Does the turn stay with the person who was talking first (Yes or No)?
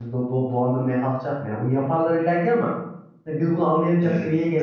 No